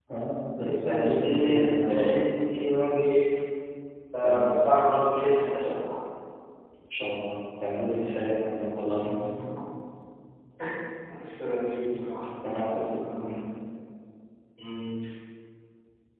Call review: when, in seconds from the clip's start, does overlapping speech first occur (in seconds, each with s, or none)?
0.6 s